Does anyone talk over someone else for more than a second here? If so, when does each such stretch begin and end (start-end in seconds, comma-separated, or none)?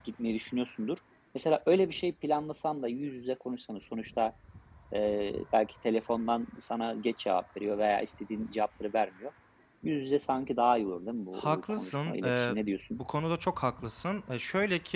11.3-12.6